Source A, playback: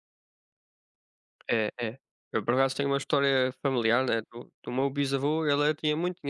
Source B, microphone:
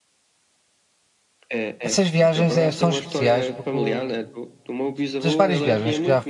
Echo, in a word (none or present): present